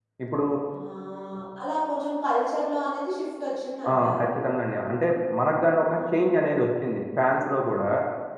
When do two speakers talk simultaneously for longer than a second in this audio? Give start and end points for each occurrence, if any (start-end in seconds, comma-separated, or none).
none